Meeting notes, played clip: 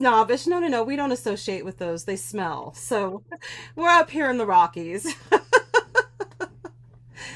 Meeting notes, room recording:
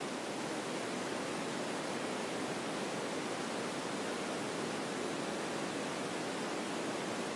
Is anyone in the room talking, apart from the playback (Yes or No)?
No